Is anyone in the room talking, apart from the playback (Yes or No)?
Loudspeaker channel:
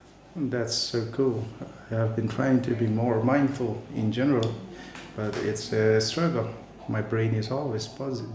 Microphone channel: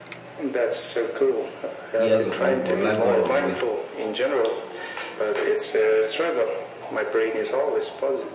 Yes